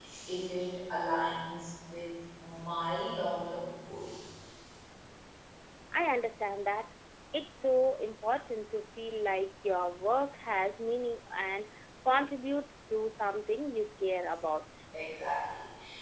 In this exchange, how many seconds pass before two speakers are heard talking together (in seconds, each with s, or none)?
none